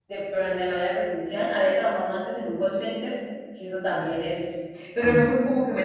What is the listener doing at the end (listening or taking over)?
listening